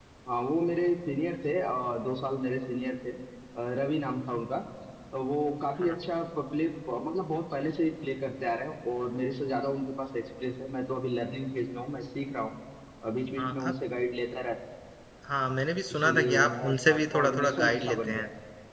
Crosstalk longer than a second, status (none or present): present